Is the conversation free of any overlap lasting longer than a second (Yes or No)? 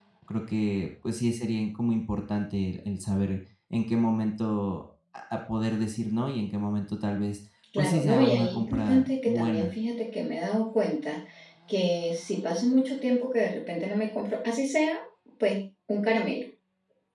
No